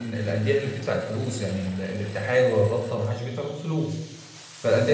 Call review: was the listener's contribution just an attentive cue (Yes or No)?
Yes